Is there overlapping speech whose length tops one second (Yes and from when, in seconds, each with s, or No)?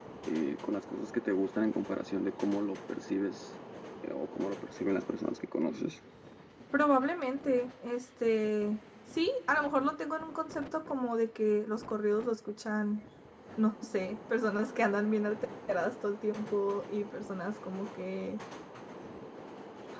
No